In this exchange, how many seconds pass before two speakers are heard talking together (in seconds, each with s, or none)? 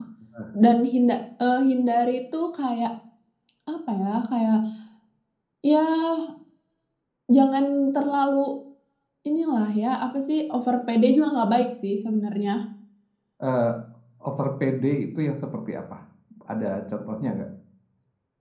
none